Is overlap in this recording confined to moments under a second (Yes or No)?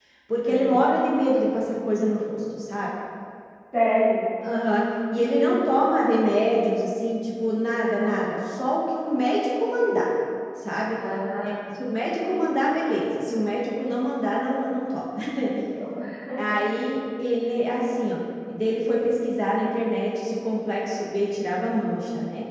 Yes